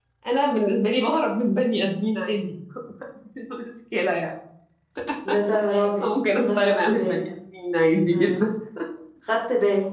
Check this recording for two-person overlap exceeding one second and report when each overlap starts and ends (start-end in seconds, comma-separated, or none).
6.0-7.2